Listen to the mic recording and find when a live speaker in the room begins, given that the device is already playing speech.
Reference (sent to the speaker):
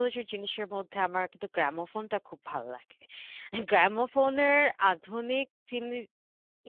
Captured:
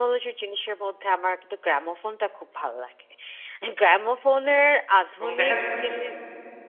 5 s

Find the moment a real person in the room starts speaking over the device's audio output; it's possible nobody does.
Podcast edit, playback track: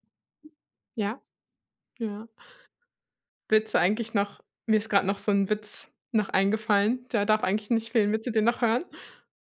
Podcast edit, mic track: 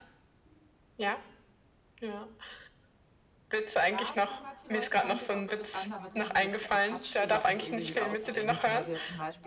4 s

